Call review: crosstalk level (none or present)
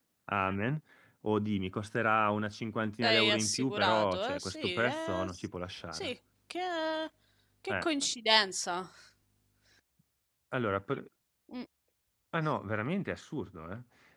present